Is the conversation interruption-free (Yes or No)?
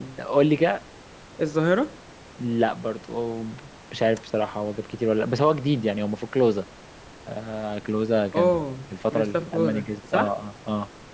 No